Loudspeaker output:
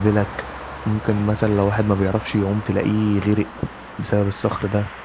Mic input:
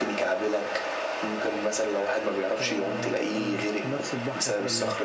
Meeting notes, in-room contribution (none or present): present